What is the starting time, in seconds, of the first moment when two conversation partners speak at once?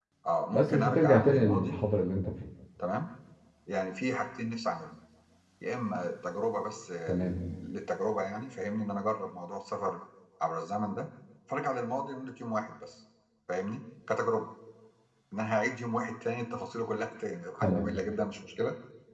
0.5 s

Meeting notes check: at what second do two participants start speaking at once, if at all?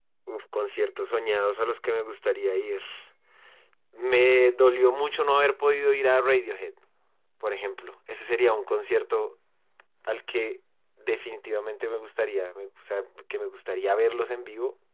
none

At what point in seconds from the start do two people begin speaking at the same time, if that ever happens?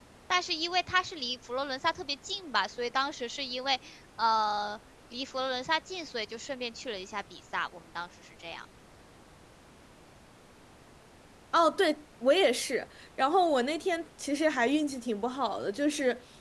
none

